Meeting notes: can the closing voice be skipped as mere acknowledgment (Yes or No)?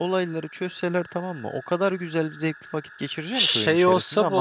No